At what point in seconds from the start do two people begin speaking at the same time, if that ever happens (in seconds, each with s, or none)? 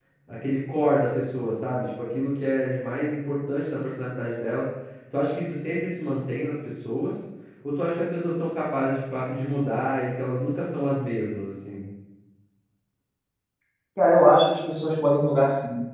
none